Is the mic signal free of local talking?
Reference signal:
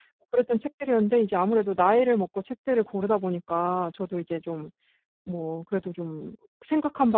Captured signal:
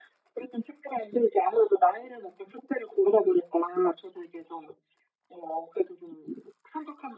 Yes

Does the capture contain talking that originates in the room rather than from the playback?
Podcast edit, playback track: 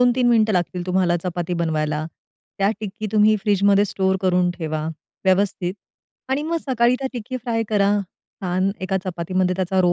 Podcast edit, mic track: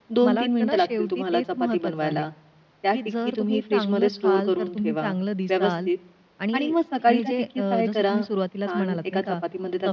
Yes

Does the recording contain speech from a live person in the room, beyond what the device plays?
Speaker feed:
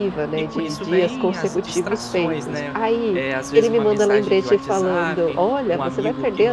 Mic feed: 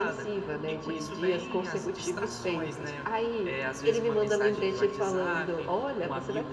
No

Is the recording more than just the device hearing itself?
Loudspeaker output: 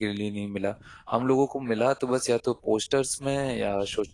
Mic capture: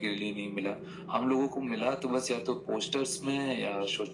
No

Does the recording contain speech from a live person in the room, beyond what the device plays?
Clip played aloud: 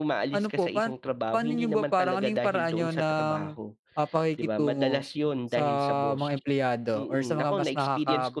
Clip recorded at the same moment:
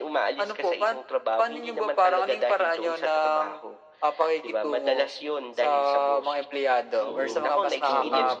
Yes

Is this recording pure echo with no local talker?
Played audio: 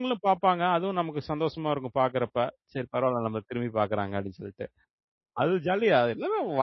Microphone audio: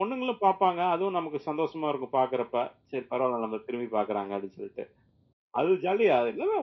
Yes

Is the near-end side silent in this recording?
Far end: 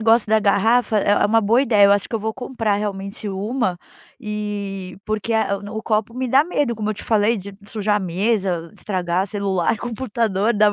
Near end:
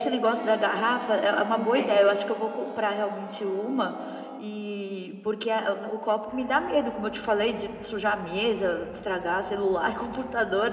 No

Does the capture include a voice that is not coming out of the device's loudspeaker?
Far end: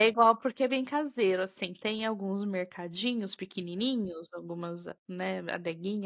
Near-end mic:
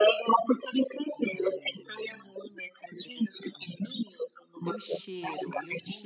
Yes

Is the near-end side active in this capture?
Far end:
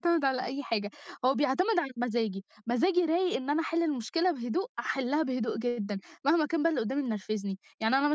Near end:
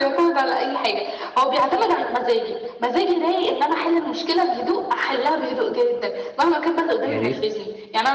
Yes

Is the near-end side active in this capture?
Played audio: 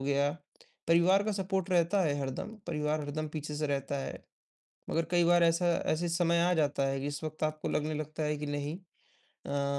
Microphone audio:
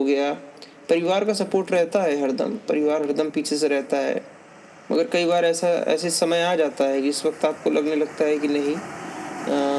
No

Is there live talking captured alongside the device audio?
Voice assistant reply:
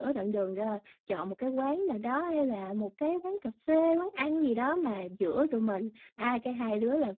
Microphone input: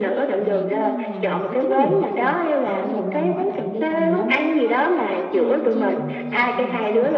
Yes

